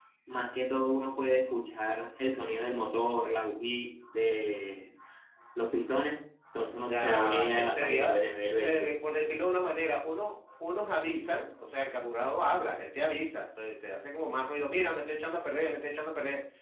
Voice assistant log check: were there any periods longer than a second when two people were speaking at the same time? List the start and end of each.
6.9-8.2

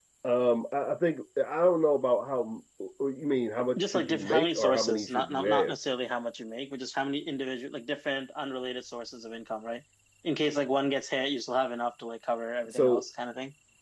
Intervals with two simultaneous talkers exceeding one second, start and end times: 3.8-5.8

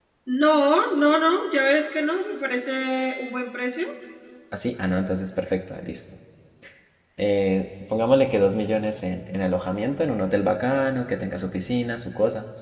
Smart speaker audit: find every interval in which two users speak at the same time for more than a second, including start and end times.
none

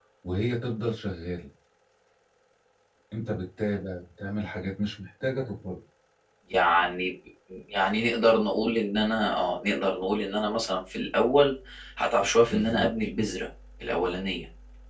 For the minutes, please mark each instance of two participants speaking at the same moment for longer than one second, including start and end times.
none

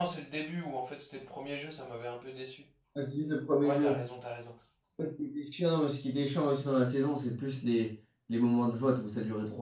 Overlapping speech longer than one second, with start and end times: none

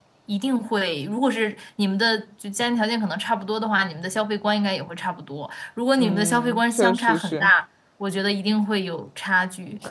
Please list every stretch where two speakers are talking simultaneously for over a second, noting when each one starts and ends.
6.0-7.5

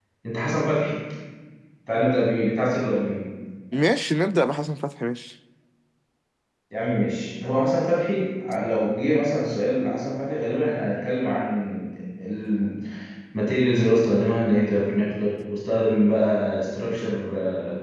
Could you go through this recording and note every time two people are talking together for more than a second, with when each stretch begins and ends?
none

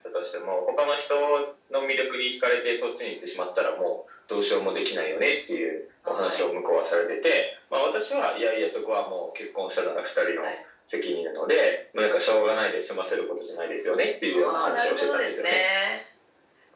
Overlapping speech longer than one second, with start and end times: 14.3-15.6

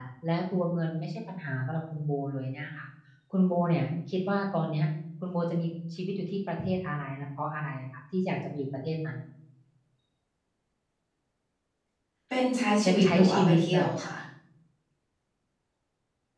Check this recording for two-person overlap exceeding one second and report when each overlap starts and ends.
12.8-14.1

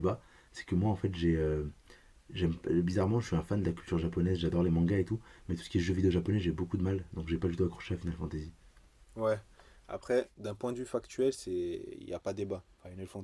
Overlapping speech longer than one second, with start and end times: none

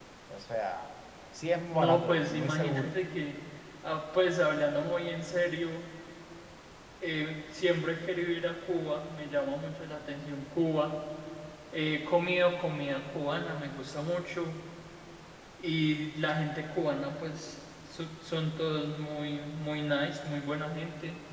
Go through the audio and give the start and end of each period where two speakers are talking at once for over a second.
1.7-2.9

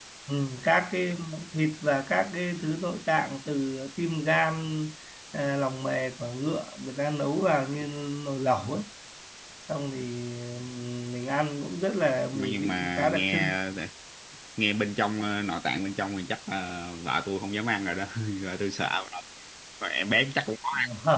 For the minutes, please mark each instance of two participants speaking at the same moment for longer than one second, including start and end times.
12.4-13.6

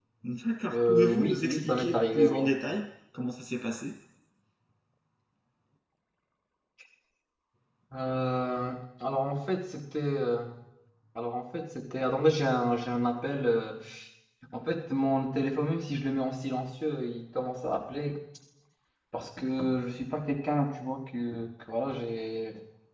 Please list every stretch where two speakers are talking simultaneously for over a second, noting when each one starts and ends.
0.7-2.5

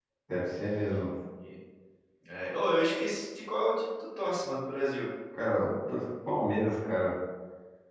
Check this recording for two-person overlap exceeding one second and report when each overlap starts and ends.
none

